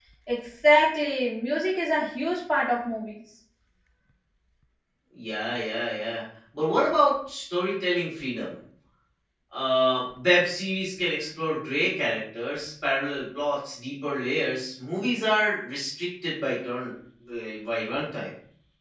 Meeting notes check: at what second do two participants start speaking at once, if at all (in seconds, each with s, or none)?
none